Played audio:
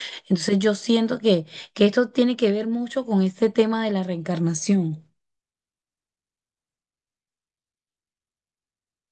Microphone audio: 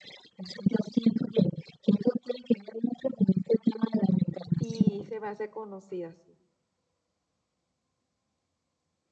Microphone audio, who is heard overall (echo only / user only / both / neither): both